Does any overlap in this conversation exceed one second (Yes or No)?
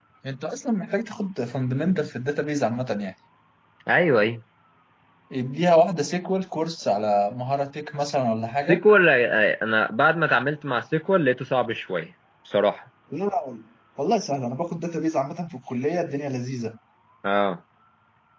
No